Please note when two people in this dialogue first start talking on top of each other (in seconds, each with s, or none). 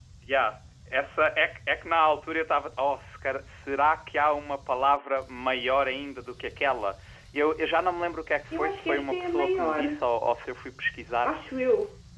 8.5 s